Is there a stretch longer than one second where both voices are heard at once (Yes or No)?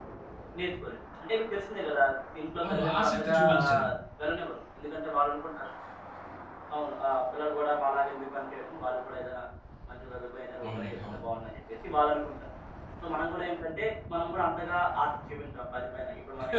Yes